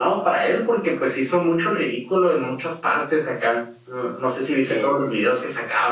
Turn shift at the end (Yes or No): No